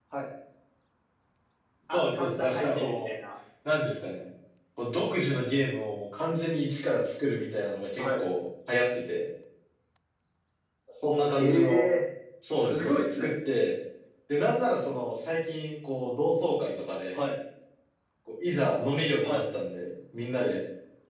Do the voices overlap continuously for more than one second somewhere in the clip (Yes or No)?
Yes